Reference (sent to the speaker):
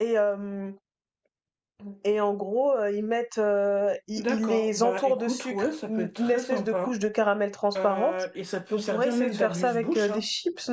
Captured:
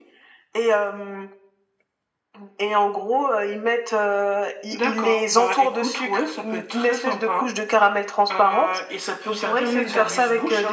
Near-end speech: none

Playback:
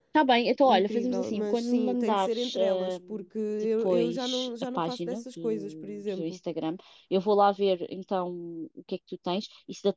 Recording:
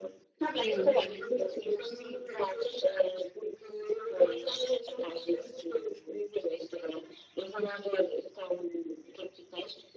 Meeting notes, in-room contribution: present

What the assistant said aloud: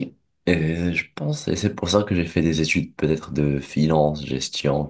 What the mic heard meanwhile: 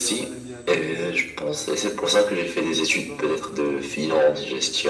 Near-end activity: present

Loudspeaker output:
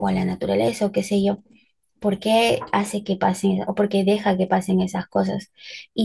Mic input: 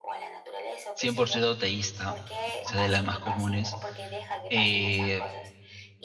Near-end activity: present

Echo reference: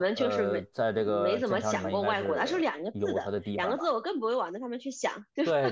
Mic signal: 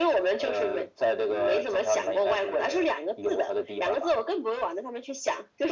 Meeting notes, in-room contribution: none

